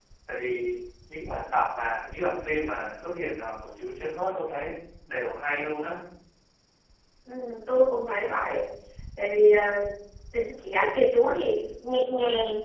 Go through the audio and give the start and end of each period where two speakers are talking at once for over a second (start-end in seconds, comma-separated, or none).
none